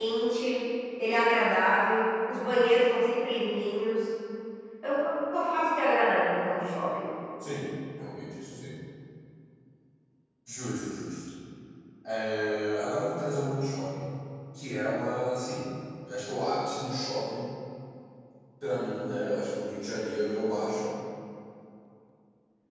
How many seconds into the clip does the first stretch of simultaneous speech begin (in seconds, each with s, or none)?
none